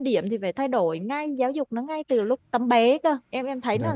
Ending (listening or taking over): taking over